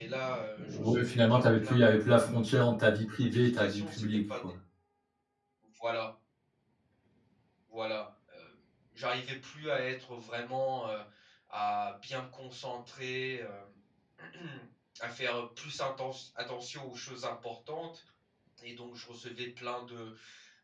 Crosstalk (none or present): present